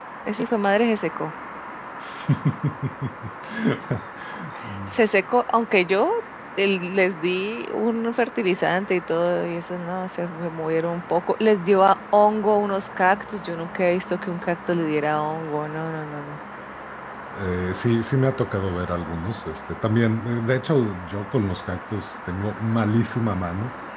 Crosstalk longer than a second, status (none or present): none